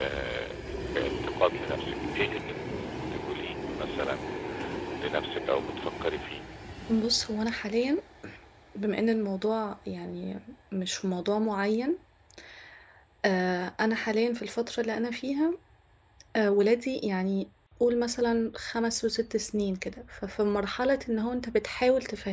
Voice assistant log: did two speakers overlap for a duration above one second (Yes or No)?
No